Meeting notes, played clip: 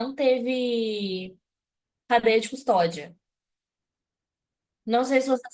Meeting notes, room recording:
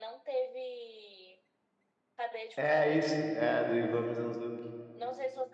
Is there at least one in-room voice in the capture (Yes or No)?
Yes